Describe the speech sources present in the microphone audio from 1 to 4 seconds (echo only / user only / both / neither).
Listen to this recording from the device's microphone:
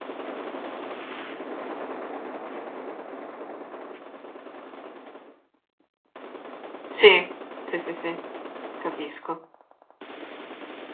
neither